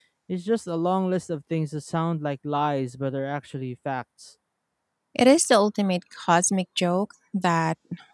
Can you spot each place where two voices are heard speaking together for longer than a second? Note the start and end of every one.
none

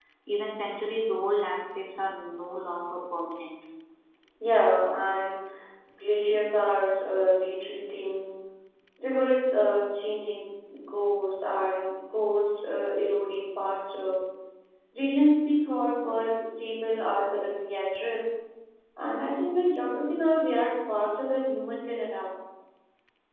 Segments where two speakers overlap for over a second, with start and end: none

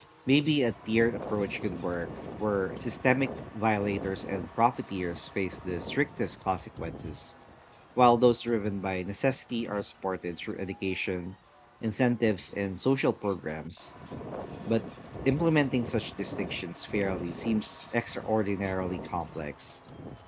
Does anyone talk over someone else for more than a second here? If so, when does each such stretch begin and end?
none

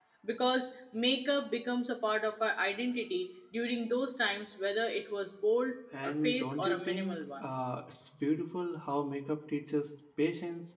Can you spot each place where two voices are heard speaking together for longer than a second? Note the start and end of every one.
6.0-7.5

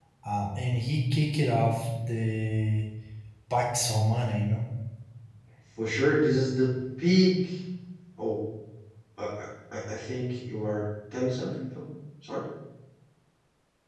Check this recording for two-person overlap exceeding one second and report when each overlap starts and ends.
none

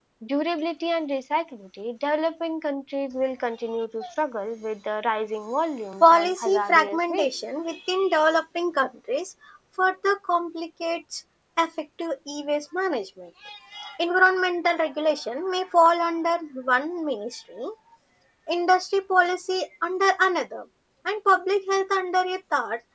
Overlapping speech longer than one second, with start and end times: 6.0-7.4

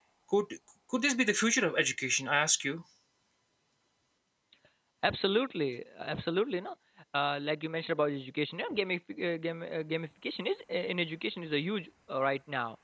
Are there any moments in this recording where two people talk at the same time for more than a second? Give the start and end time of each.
none

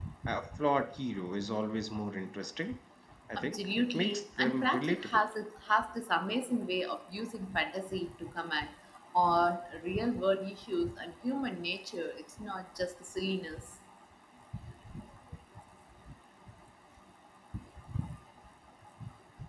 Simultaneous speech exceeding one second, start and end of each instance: 3.4-5.2

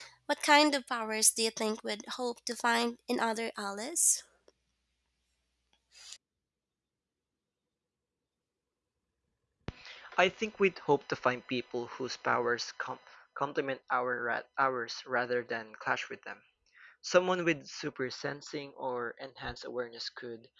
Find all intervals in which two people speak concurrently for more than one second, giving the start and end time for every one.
none

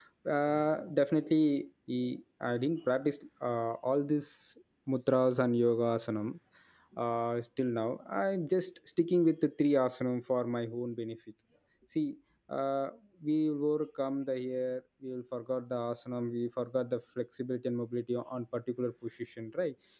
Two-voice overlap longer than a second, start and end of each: none

